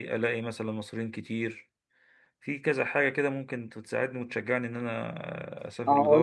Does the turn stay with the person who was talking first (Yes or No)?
No